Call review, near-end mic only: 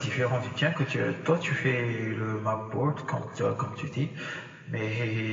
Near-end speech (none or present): none